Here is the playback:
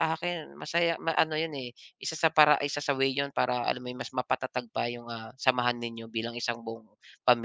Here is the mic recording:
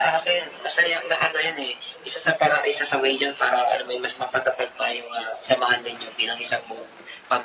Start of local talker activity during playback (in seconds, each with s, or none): none